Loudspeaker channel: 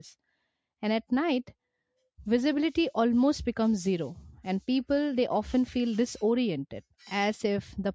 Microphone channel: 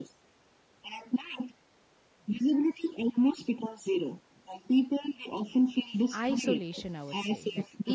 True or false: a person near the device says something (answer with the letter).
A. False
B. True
B